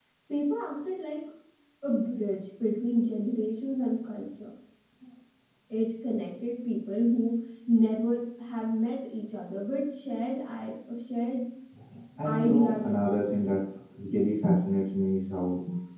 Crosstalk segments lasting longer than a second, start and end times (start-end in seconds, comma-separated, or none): 12.2-13.6